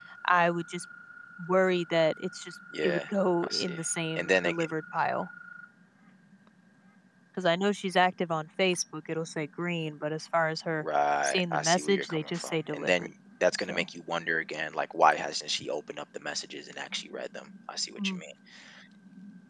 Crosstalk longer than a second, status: present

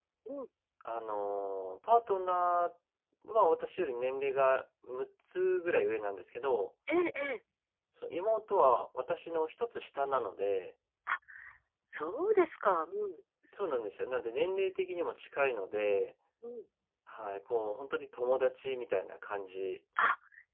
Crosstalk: none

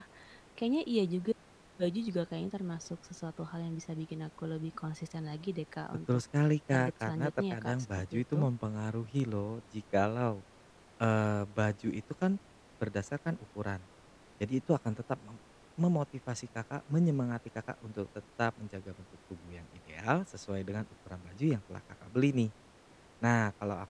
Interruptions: present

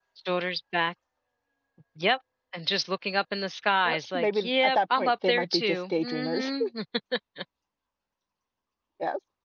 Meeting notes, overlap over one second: present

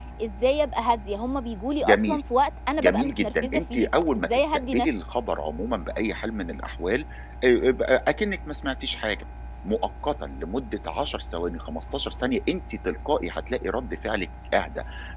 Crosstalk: present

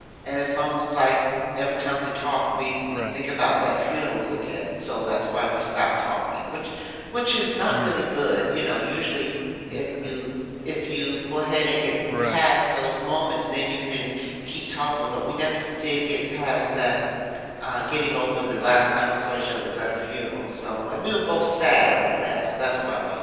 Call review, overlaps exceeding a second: none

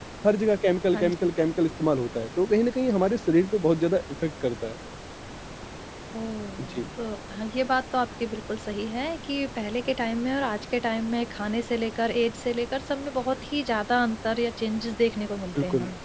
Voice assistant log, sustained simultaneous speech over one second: none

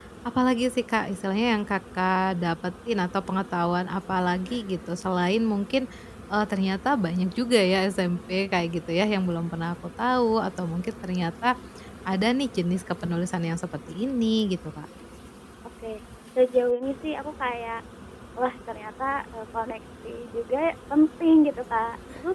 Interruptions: none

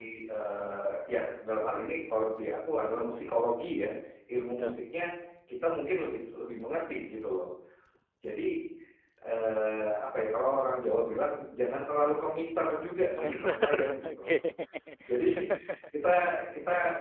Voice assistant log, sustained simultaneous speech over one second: present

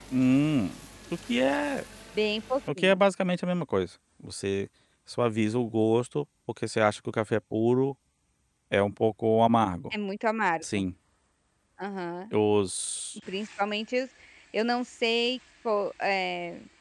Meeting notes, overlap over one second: none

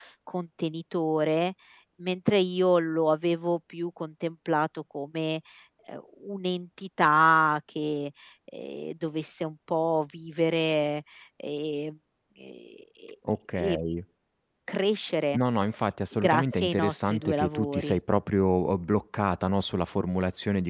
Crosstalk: present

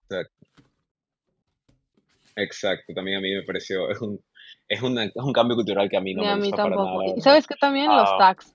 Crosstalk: present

